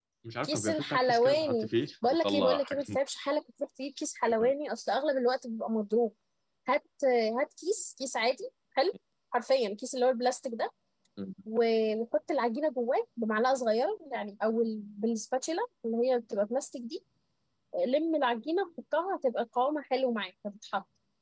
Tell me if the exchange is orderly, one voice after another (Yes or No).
No